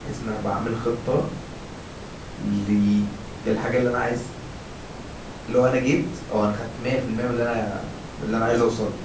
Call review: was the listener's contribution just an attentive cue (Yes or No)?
No